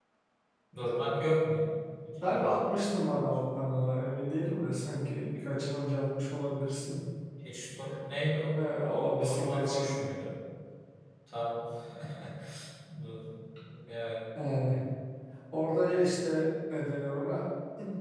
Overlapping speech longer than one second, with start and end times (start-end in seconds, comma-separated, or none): 8.9-10.1